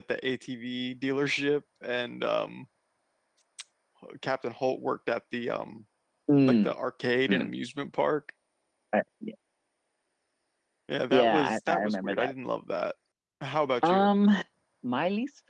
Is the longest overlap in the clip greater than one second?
Yes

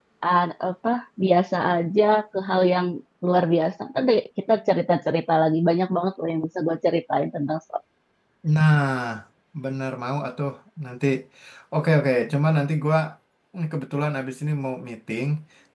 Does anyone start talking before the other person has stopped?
No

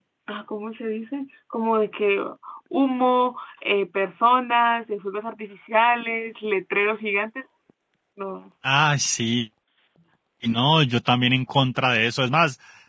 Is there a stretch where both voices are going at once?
No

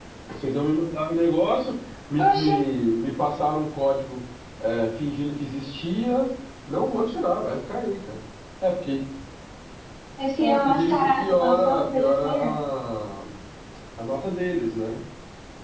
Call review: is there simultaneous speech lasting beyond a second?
Yes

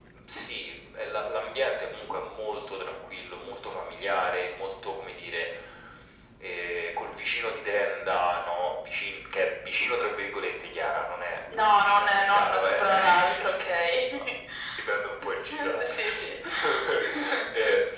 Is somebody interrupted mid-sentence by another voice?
Yes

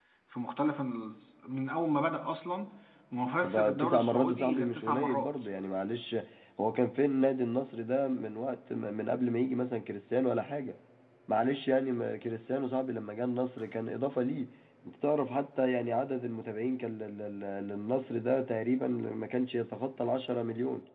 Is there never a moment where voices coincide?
No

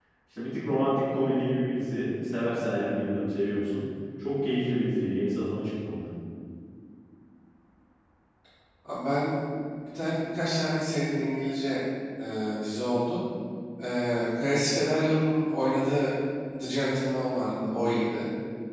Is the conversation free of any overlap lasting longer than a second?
Yes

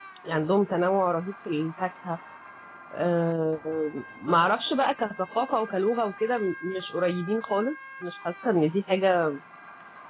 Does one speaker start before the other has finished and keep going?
No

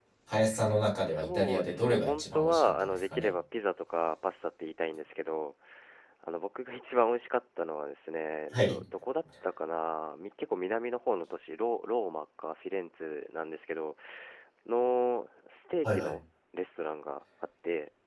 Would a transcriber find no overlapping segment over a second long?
No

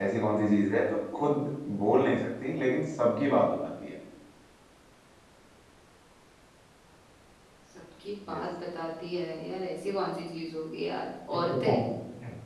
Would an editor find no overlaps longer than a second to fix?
Yes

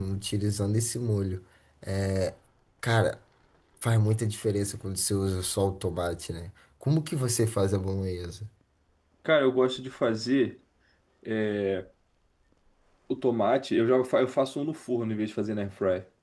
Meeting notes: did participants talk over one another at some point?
No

